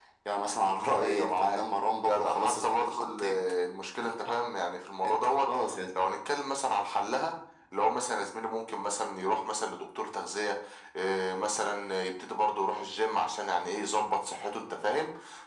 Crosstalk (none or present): present